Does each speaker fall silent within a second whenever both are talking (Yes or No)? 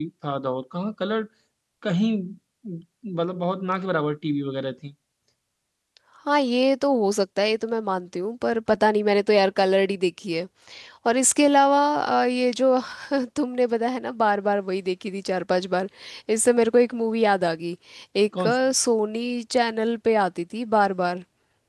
Yes